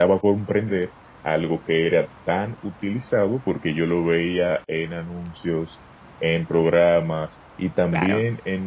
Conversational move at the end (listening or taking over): listening